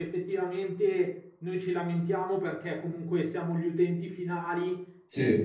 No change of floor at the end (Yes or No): Yes